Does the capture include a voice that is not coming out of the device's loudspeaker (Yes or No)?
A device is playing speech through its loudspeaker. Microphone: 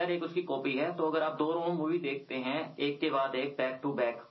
No